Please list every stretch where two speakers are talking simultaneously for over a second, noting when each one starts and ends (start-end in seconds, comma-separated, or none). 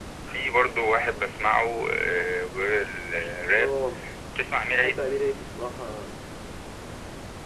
none